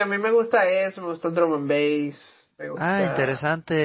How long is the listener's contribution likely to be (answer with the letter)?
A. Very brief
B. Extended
B